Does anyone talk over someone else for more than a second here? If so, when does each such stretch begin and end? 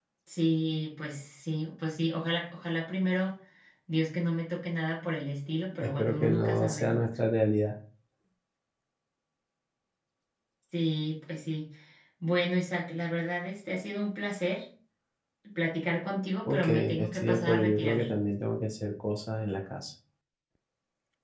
5.8-7.0, 16.5-18.0

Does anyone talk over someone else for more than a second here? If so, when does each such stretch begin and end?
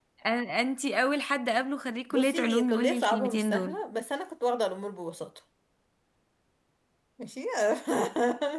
2.1-3.8

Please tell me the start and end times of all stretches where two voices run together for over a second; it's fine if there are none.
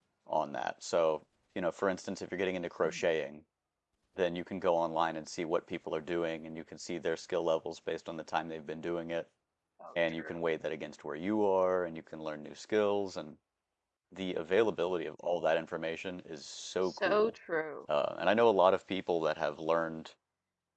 none

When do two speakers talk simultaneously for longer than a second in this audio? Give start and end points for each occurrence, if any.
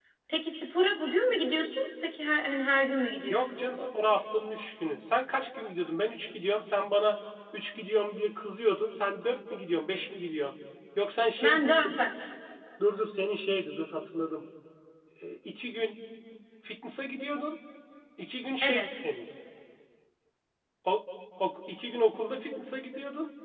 none

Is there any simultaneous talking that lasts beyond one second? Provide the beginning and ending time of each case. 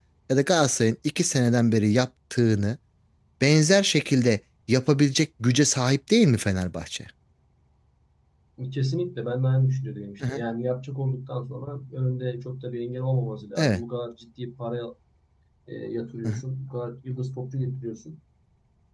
none

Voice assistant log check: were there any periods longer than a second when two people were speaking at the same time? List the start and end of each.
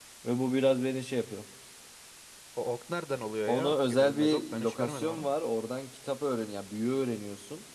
3.5-5.3

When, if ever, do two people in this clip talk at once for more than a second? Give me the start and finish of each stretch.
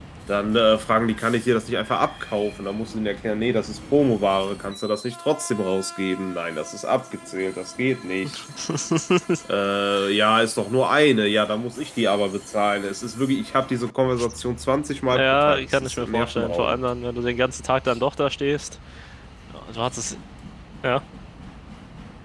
15.1-16.8

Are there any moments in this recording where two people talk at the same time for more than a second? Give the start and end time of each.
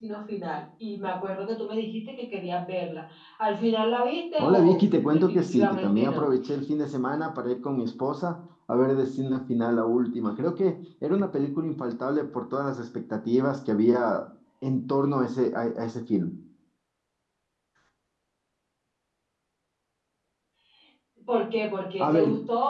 4.4-6.3

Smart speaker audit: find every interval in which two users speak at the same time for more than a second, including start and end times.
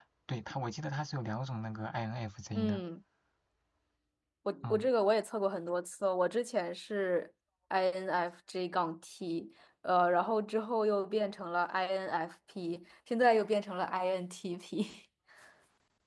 none

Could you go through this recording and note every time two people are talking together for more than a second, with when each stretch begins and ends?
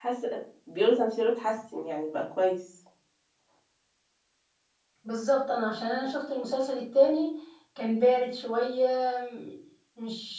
none

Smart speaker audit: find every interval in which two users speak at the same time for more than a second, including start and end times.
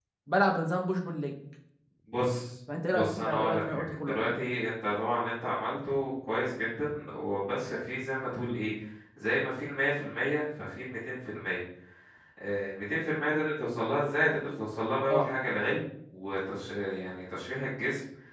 2.9-4.4

